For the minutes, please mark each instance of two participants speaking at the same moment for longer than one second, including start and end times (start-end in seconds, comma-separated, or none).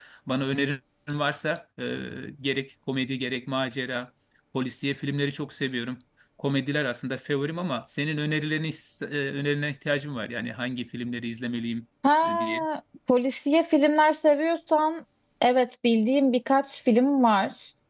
none